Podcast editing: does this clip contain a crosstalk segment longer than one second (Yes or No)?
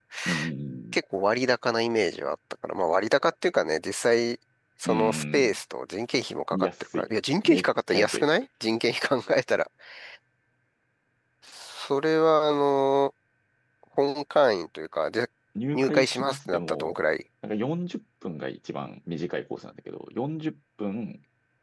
Yes